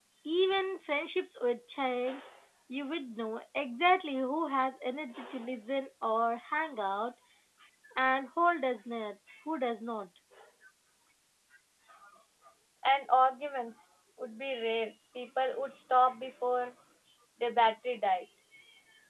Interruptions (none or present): none